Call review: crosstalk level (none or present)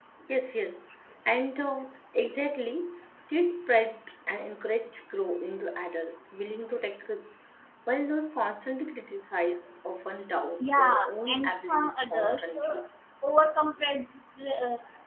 present